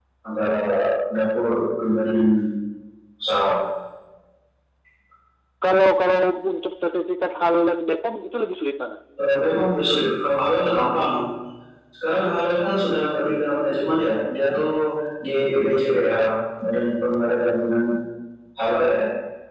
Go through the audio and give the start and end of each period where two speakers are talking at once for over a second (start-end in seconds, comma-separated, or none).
none